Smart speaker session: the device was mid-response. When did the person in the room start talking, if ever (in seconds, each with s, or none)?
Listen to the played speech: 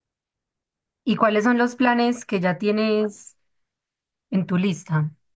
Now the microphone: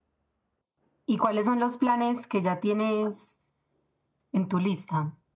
none